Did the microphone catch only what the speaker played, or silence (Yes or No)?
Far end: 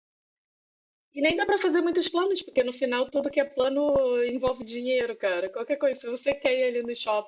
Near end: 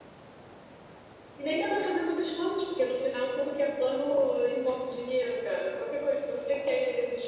Yes